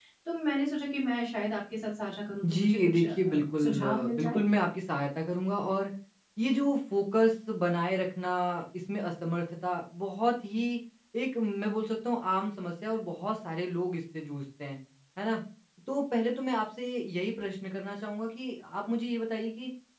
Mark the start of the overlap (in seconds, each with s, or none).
2.4 s